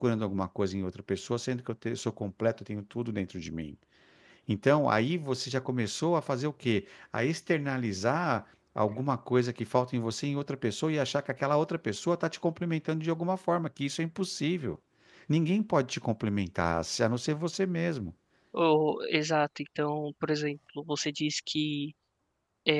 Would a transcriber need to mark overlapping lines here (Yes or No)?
No